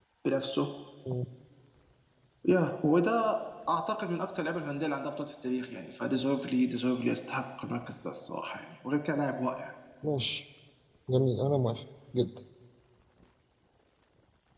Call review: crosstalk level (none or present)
none